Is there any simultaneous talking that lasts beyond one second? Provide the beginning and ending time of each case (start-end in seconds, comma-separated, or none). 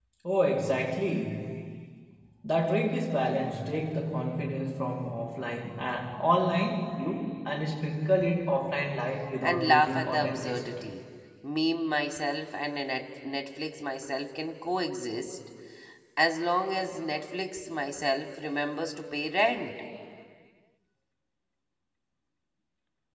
9.4-10.8